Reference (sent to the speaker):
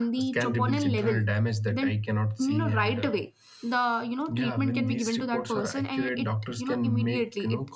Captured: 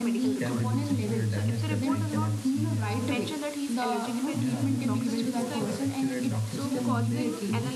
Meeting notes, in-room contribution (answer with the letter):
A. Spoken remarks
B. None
A